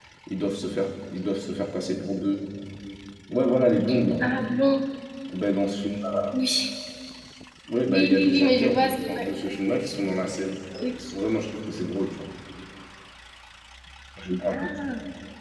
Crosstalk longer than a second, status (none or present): present